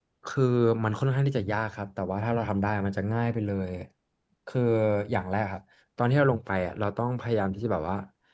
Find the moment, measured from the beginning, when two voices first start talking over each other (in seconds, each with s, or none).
none